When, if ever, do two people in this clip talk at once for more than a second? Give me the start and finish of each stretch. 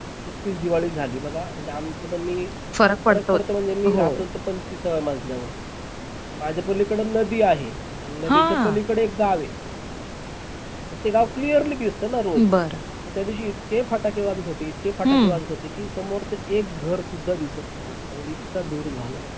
none

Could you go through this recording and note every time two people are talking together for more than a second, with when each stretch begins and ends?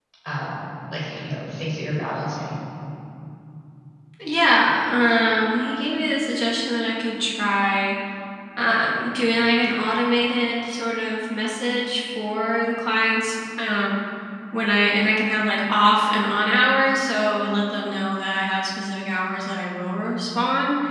none

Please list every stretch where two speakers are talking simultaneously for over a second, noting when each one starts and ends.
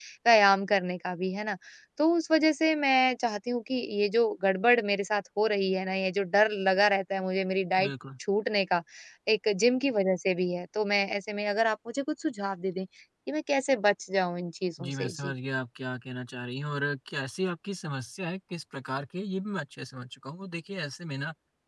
none

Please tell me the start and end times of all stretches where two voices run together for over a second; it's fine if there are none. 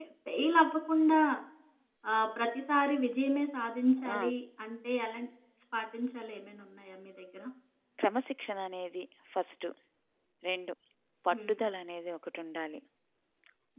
none

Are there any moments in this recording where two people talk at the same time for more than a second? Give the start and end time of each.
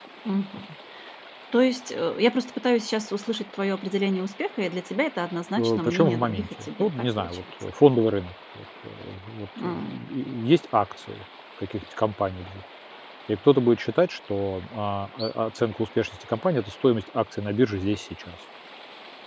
5.6-7.4

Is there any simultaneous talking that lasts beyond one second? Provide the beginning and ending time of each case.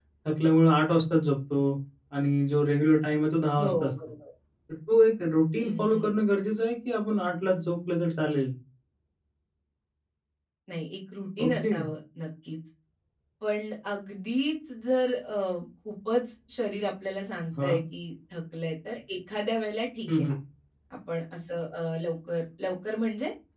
none

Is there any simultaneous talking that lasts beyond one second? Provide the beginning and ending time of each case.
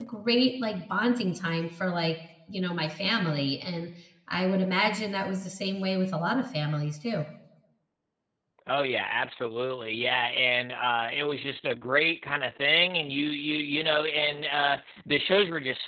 none

